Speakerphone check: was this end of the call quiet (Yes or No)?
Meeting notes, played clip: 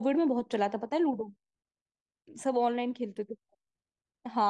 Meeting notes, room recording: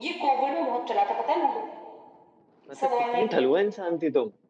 No